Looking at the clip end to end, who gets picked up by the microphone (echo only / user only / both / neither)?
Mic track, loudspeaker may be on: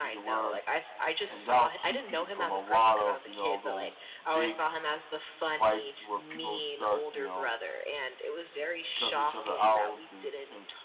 both